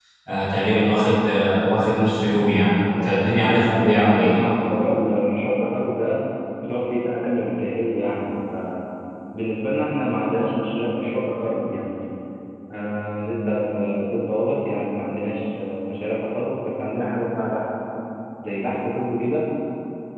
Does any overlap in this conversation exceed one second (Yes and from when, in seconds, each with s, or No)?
Yes, from 2.7 s